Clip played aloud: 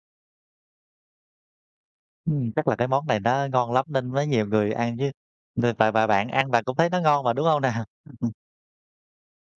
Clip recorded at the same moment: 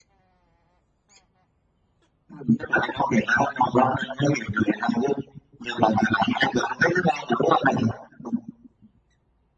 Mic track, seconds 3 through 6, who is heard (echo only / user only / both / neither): echo only